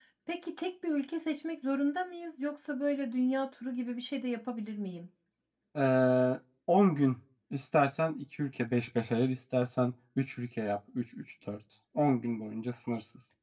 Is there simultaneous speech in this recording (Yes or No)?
No